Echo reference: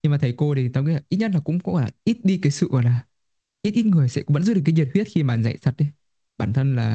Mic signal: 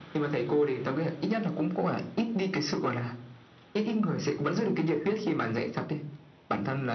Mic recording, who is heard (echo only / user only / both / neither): echo only